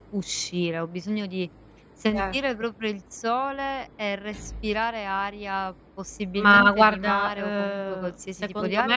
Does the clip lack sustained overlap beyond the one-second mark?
No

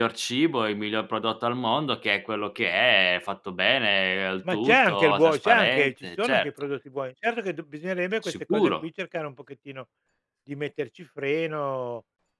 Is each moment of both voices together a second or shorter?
No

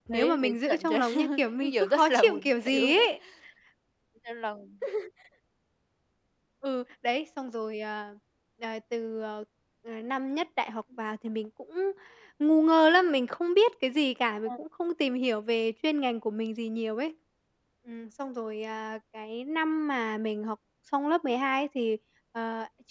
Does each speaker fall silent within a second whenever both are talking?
No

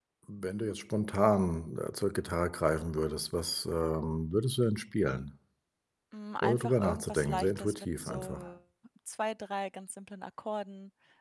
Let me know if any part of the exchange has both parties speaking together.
Yes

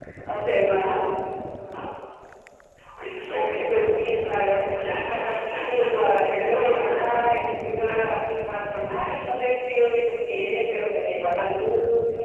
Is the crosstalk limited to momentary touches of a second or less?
No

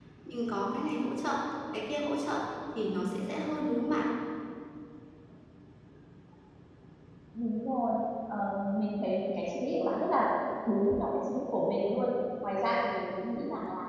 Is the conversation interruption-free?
Yes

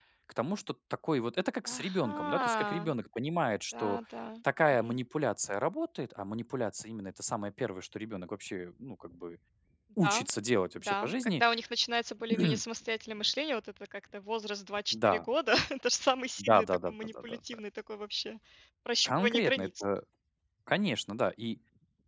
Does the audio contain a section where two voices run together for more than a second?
Yes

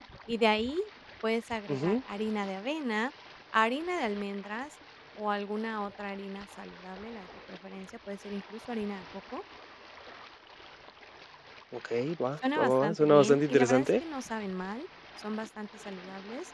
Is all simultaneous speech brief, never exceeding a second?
No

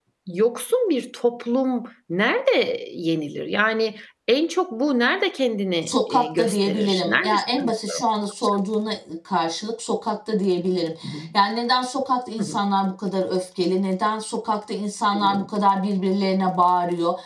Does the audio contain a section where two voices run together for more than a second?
Yes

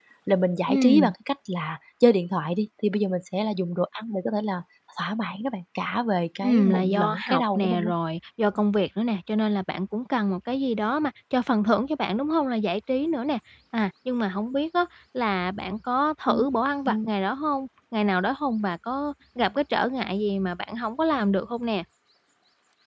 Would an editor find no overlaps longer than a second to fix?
No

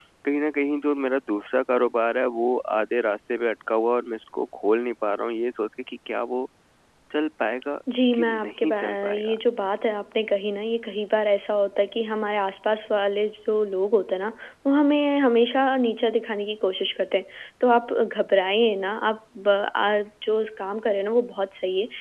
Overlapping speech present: Yes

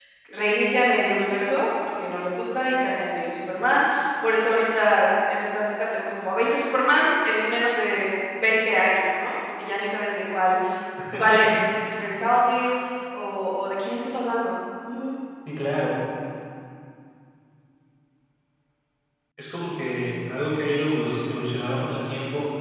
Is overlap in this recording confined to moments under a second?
Yes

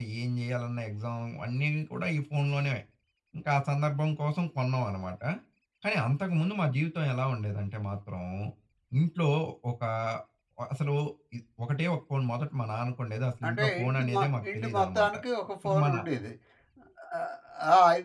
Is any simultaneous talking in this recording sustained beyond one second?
Yes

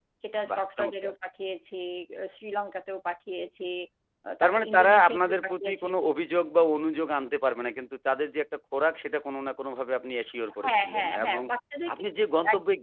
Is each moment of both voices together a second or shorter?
No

